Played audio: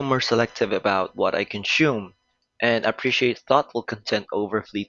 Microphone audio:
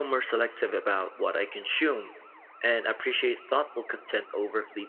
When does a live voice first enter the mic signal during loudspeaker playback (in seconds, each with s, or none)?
none